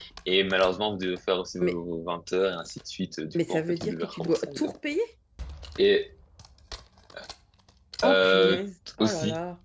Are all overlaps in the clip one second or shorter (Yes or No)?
No